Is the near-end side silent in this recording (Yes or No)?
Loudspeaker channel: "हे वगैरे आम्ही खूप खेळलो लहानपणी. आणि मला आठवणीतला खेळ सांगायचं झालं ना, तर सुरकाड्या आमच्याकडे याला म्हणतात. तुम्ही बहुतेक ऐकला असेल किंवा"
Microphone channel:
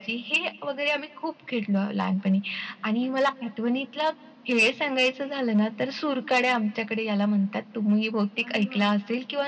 No